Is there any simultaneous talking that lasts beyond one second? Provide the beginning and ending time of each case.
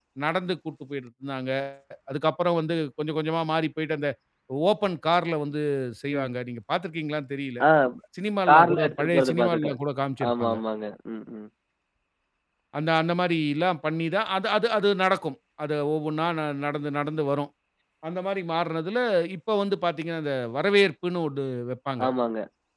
8.5-9.7

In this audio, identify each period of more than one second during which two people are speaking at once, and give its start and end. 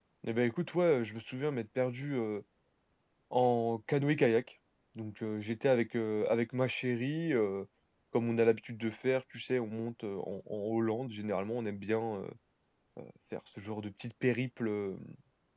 none

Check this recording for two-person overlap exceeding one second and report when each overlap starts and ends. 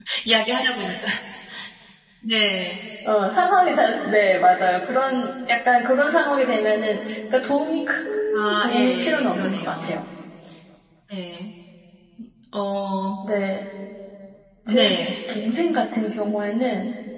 8.3-10.0

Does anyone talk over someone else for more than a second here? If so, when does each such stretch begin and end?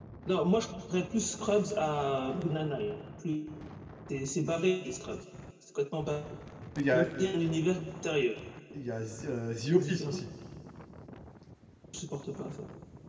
none

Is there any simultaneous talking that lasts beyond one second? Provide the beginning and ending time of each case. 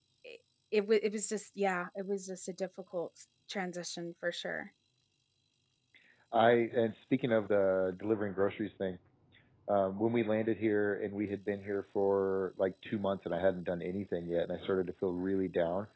none

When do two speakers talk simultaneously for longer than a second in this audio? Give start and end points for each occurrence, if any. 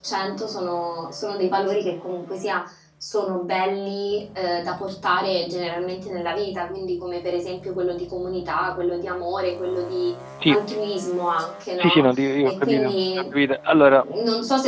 11.8-13.0

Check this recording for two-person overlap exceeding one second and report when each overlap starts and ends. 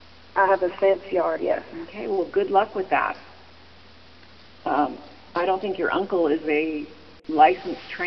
none

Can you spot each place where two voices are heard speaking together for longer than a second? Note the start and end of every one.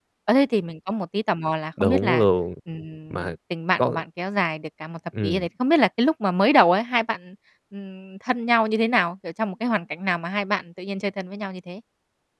none

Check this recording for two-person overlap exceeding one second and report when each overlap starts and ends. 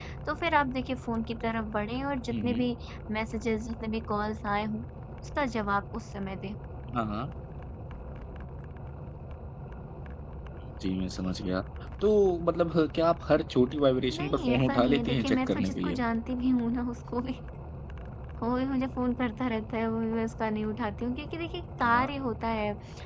14.1-16.0

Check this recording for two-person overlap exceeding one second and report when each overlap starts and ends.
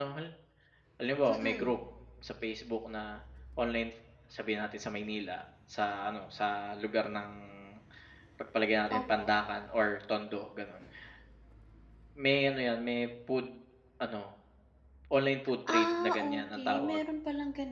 15.7-17.0

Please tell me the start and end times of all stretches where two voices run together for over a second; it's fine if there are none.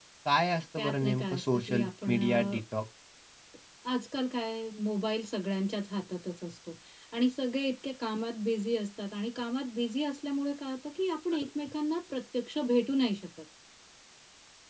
0.8-2.6

